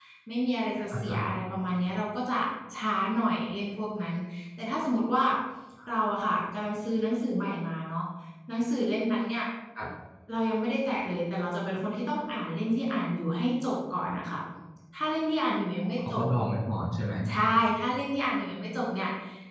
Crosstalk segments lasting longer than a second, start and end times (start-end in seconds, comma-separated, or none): none